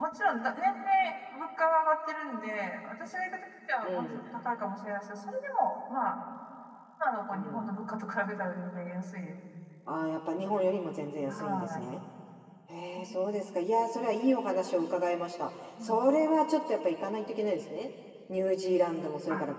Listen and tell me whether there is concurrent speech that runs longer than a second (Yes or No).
No